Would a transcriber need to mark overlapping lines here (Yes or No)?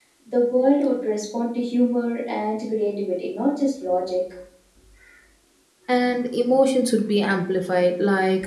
No